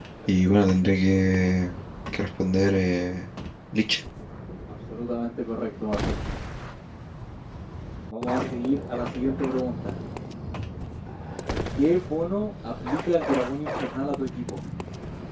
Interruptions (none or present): none